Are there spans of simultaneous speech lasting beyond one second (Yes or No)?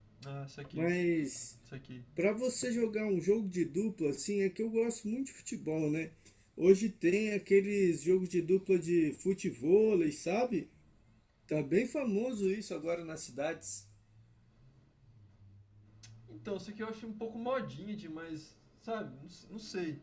No